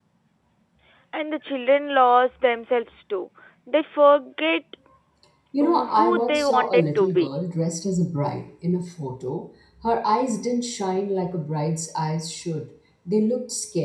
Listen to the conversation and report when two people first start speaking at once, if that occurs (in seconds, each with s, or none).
5.6 s